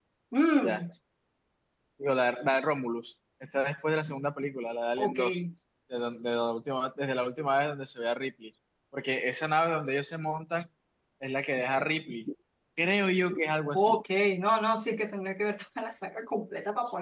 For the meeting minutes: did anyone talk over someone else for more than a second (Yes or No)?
No